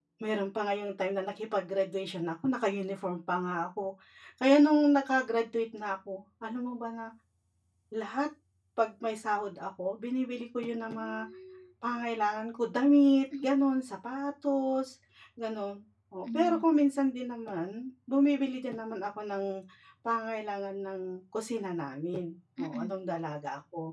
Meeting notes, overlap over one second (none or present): none